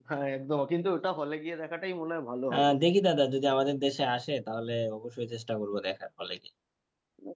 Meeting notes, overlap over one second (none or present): none